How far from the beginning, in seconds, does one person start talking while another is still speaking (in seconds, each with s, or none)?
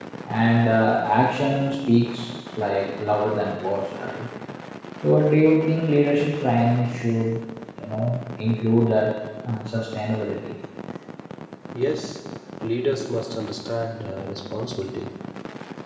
none